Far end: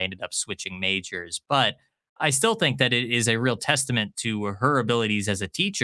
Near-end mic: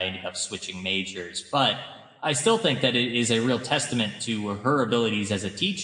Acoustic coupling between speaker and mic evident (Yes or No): Yes